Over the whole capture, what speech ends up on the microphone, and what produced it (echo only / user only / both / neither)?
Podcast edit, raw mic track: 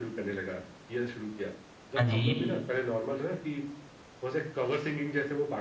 both